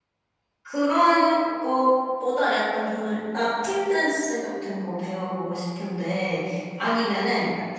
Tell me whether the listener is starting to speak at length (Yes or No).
No